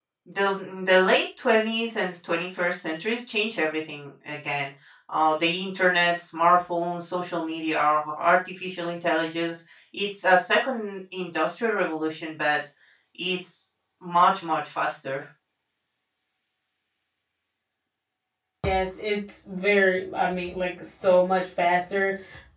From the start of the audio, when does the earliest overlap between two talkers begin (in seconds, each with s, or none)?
none